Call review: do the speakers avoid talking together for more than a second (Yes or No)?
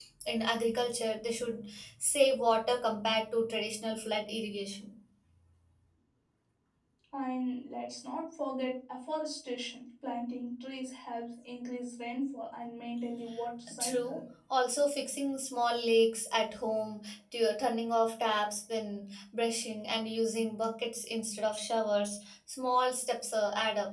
Yes